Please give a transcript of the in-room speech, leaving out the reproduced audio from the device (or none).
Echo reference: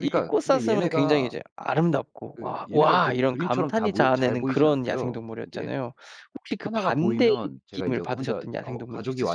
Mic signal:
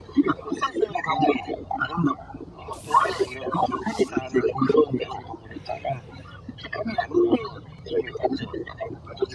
none